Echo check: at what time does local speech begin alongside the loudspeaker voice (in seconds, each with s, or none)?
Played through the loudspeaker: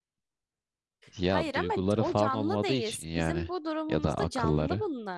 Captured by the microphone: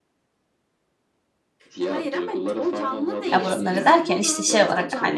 3.3 s